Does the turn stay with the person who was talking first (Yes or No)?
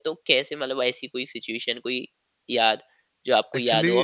Yes